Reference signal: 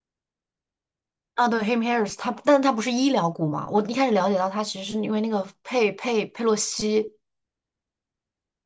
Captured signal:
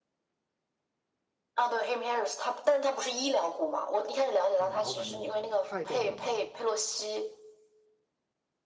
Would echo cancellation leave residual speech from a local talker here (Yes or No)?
Yes